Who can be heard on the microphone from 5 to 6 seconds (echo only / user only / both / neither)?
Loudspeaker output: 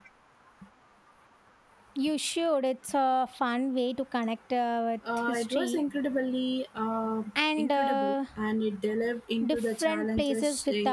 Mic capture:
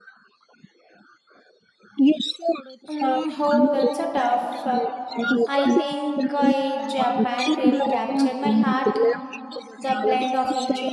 both